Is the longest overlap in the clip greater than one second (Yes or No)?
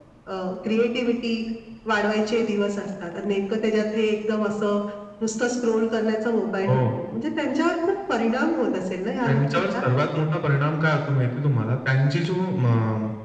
No